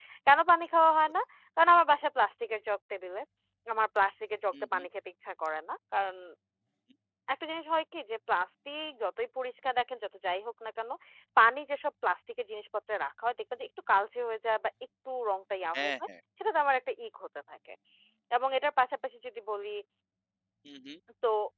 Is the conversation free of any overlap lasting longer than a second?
Yes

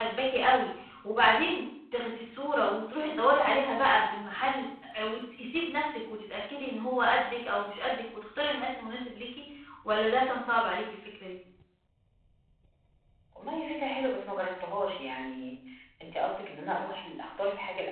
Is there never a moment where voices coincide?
Yes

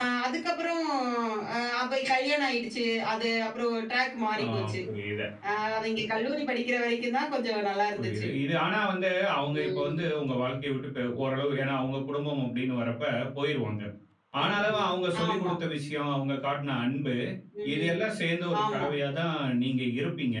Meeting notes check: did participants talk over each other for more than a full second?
No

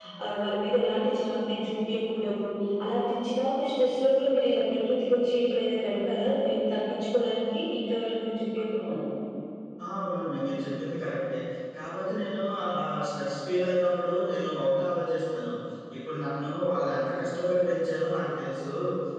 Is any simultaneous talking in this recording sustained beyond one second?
No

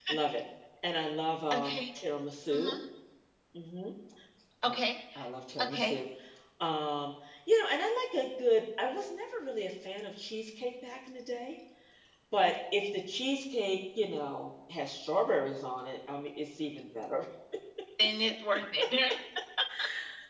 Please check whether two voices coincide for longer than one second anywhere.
No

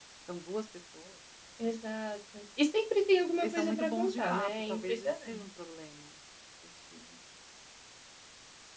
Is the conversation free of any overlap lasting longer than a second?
No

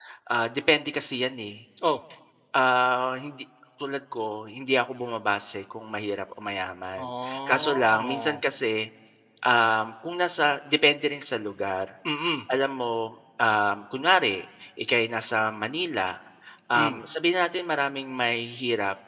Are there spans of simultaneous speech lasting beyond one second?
Yes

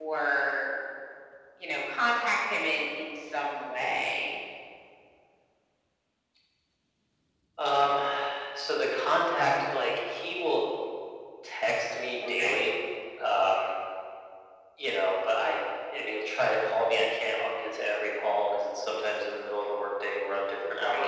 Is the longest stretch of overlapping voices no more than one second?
Yes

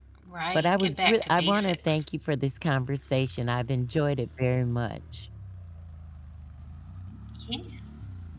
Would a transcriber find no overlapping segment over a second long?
No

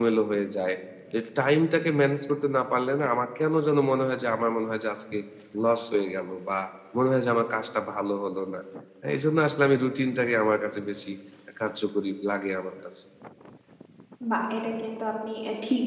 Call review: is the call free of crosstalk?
Yes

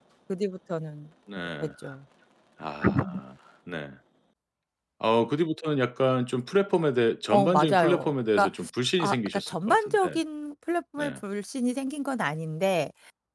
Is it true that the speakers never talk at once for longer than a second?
No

